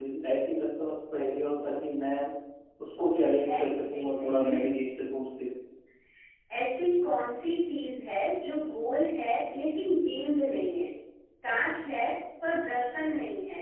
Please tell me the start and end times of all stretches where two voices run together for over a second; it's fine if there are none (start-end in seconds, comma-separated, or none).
3.2-4.5